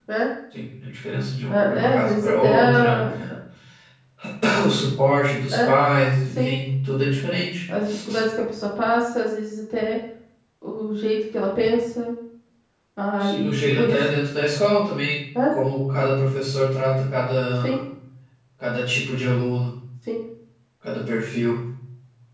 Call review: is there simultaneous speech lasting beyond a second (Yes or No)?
Yes